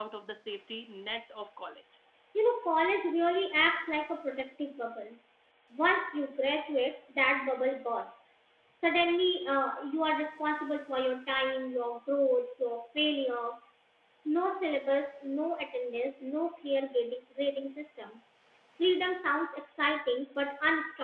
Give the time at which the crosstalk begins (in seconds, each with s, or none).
none